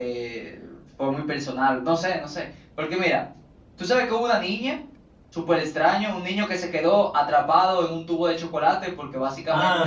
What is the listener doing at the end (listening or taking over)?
taking over